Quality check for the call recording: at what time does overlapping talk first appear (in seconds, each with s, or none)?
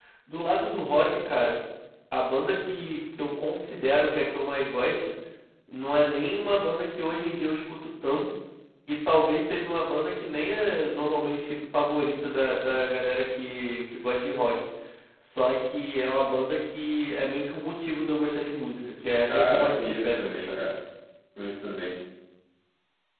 19.3 s